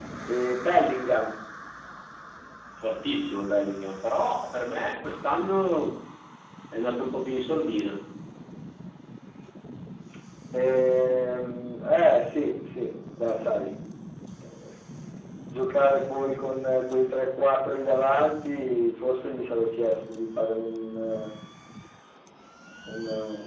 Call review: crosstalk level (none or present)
none